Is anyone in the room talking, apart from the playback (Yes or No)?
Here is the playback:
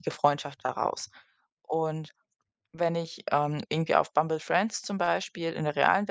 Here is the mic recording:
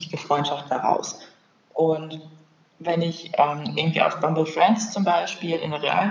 No